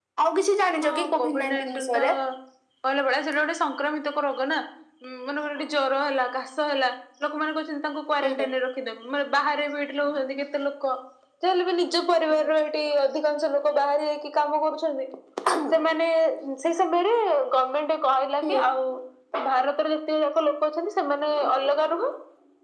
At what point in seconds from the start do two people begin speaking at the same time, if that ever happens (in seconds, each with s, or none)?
0.8 s